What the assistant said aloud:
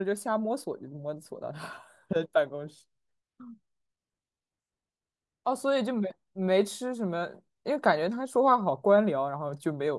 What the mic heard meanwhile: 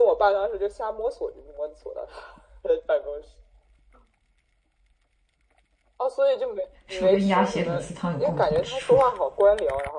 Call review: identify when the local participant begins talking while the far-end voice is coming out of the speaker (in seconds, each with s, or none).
6.9 s